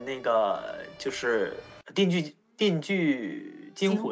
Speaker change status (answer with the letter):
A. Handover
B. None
A